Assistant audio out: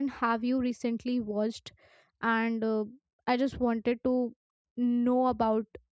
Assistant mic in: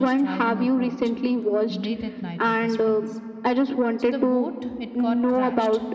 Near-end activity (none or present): present